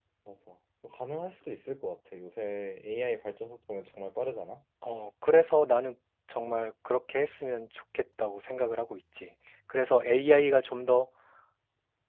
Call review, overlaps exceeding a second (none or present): none